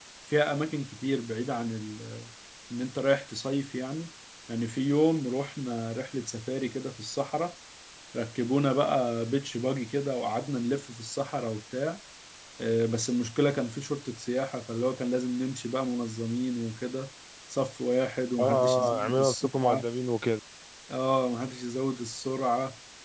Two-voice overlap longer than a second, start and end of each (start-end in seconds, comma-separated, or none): 18.4-19.9